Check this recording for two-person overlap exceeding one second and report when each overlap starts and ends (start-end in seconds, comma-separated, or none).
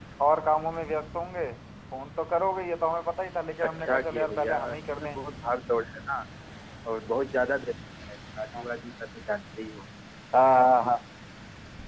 3.6-5.1